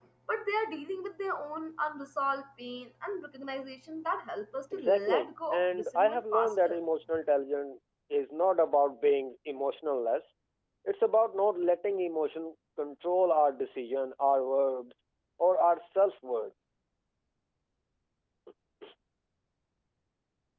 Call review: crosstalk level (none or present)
present